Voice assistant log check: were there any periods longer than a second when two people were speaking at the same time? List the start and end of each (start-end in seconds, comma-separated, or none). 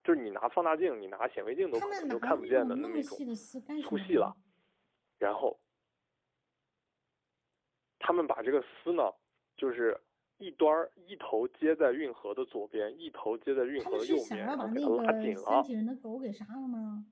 1.7-3.2, 13.8-15.7